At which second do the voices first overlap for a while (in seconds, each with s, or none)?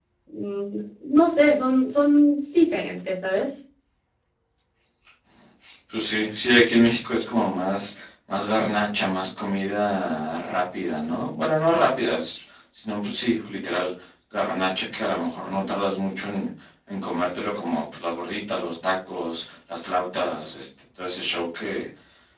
none